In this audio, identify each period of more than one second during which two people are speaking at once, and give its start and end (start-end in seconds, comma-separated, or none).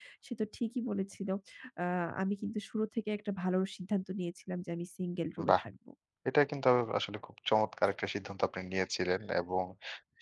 none